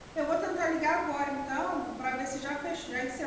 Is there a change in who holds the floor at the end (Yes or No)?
No